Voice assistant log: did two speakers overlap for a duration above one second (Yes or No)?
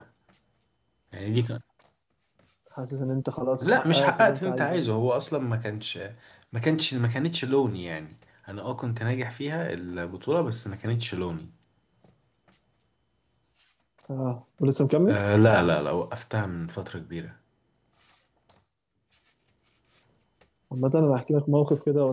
Yes